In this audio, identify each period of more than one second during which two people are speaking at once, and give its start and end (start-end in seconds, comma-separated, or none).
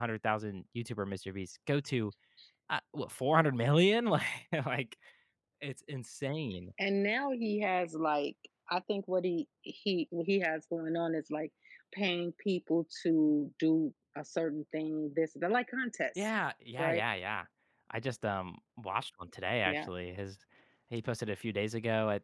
none